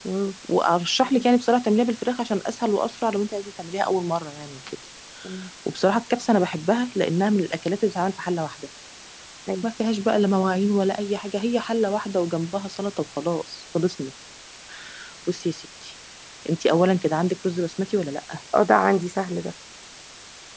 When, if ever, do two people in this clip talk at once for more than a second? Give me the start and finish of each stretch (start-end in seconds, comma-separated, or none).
none